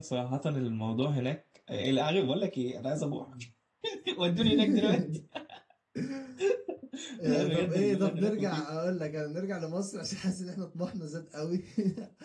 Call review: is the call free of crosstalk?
No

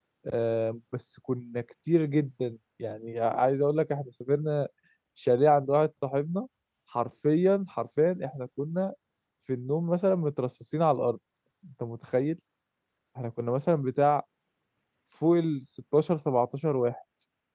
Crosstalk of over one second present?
No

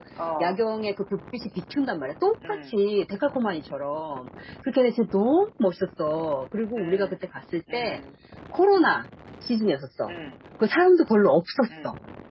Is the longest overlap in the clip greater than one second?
No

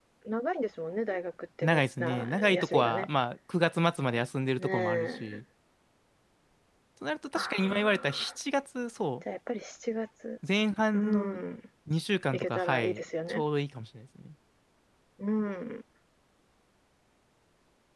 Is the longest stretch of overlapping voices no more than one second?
No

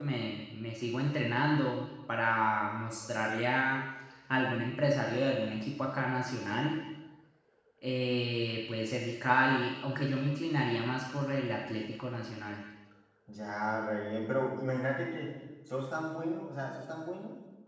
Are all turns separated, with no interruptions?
Yes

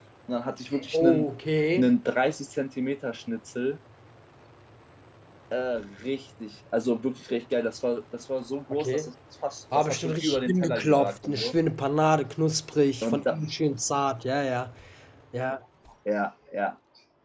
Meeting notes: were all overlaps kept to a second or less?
No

